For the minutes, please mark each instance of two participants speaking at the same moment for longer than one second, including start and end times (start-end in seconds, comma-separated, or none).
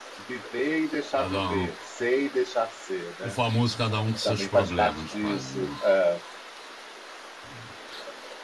4.2-5.7